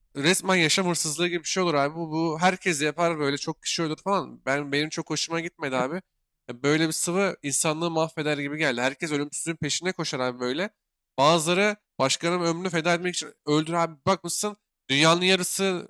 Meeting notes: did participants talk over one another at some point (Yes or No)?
No